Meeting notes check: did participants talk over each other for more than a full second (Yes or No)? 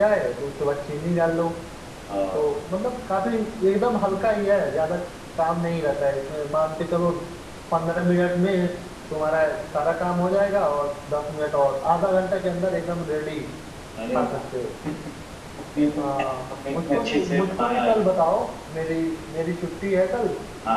Yes